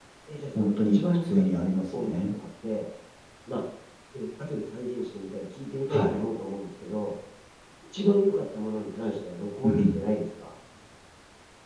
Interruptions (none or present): present